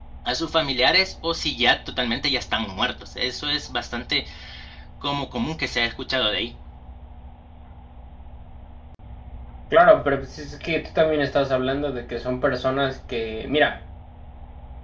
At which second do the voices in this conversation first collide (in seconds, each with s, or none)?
none